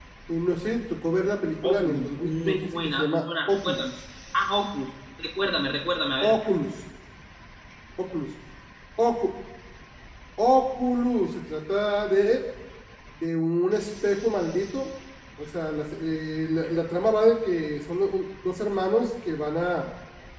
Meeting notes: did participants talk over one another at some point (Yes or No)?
Yes